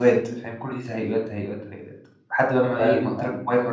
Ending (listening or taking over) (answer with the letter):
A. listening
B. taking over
A